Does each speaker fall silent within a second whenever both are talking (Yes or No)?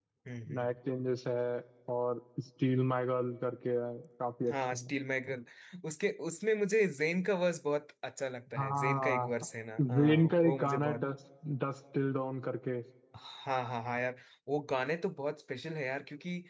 No